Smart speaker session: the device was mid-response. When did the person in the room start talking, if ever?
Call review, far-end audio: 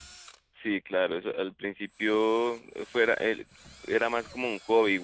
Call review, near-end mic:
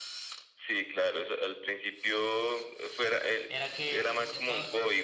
3.5 s

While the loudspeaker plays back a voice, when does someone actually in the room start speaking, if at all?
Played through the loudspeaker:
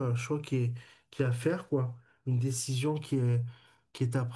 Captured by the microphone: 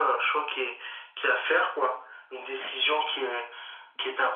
none

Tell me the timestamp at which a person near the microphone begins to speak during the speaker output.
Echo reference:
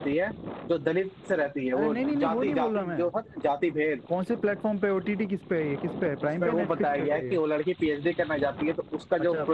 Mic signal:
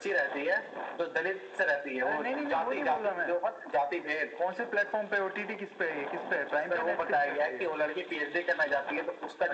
none

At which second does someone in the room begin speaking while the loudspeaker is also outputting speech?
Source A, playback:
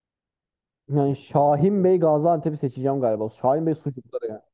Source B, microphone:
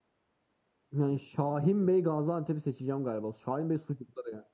none

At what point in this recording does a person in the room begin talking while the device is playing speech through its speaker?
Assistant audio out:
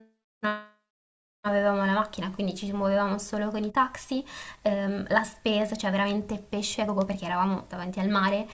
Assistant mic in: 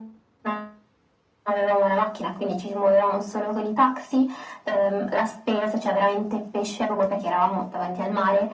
none

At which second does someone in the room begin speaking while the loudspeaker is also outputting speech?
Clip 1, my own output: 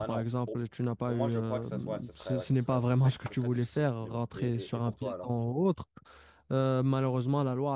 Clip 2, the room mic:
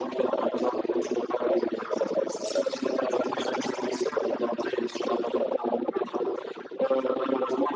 none

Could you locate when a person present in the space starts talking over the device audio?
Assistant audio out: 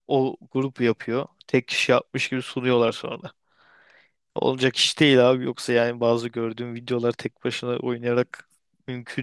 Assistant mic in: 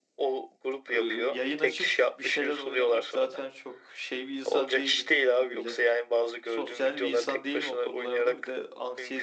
0.9 s

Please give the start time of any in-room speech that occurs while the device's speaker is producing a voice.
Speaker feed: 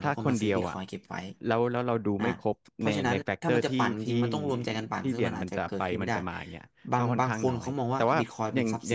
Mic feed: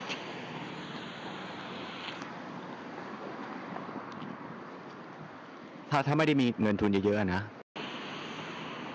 5.9 s

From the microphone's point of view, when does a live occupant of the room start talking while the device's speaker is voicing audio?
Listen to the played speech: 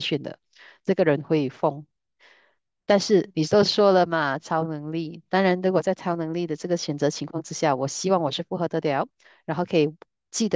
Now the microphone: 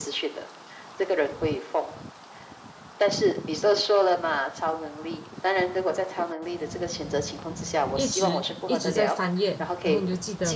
7.9 s

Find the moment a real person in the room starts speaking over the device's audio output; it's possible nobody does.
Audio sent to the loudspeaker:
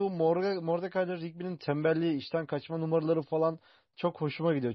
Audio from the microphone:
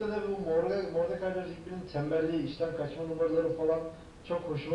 none

